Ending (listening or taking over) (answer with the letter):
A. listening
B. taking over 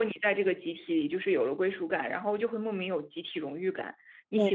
A